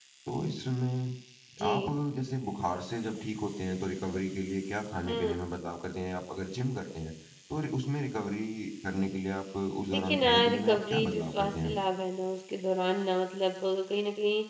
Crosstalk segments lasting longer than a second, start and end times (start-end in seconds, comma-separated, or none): 9.9-11.8